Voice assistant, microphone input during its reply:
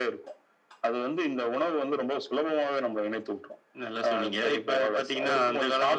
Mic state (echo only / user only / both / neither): echo only